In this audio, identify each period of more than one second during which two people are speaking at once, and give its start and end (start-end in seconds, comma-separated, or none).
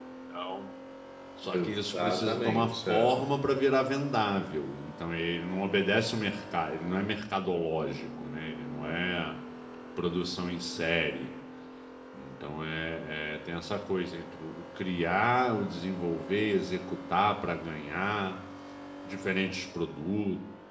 1.5-3.2